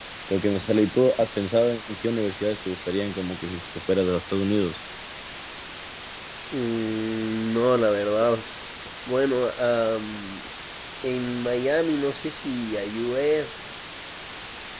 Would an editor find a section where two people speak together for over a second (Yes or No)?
No